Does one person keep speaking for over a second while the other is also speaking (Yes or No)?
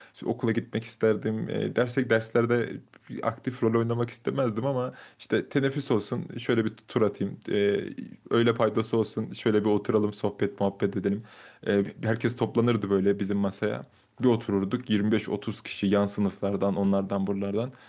No